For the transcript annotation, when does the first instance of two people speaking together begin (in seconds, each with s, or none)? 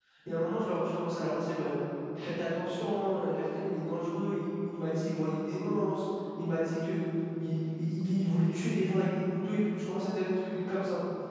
none